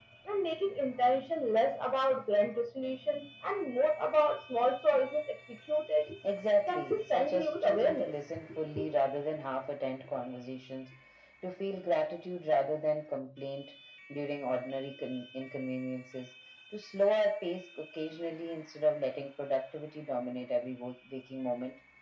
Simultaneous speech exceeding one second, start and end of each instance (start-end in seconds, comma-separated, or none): 6.7-8.1